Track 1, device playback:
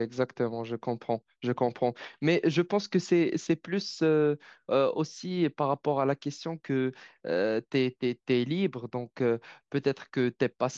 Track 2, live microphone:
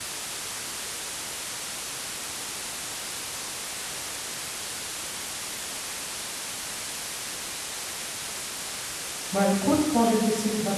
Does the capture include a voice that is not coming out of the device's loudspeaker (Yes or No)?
Yes